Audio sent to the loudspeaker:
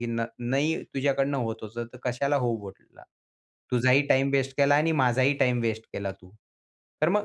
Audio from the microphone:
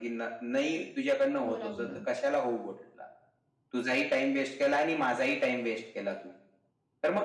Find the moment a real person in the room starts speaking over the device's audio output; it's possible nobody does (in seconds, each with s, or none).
1.4 s